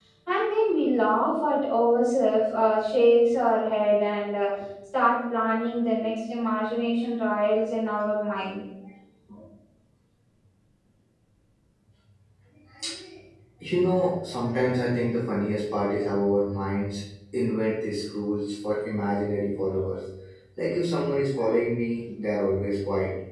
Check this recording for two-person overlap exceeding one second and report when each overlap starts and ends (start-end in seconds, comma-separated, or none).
none